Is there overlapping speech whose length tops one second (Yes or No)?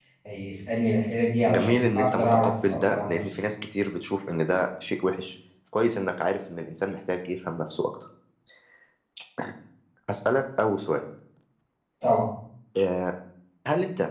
Yes